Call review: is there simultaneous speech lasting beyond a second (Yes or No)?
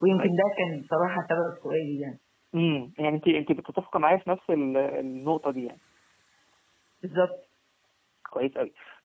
No